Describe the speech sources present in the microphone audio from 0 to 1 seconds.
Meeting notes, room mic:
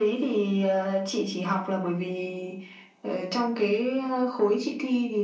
echo only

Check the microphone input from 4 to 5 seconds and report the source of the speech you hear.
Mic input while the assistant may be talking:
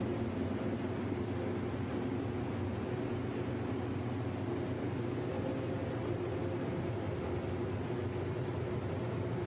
neither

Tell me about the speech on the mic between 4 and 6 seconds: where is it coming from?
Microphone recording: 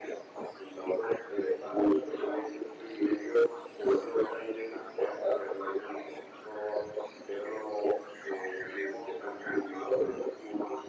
echo only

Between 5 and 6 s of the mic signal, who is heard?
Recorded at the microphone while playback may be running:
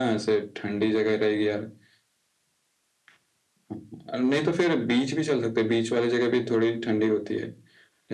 echo only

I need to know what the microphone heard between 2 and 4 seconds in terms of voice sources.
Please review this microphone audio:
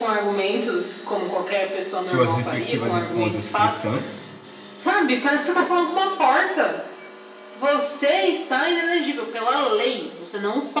both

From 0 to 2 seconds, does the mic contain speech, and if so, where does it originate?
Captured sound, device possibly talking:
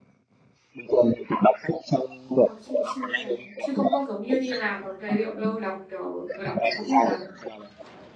echo only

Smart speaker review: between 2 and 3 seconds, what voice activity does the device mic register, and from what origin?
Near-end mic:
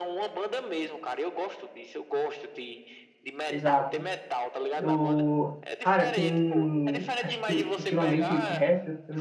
echo only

